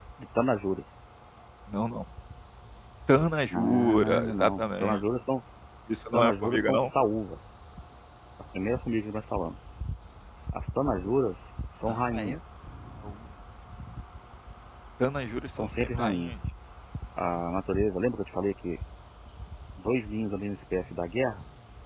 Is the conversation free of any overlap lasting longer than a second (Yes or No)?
No